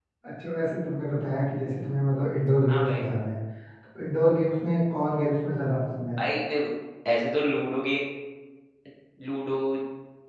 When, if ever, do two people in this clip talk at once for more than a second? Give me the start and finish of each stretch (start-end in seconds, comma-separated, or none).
none